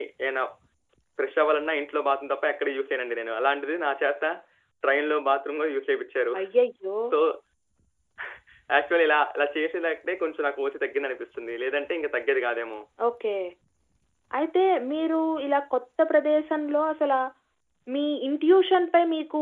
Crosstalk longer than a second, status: none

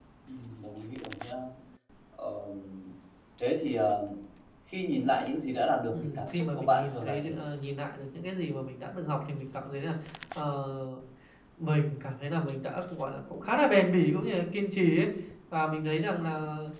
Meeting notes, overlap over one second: present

